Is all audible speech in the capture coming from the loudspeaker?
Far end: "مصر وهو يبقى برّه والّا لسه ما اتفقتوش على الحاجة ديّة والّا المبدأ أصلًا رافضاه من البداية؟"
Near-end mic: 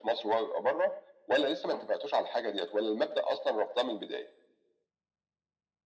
Yes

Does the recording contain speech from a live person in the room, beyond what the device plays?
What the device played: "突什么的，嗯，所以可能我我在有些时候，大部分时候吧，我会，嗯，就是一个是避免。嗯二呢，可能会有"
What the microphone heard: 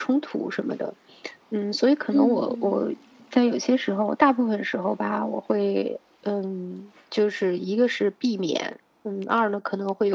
Yes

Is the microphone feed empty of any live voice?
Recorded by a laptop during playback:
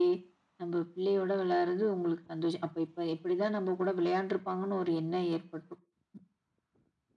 Yes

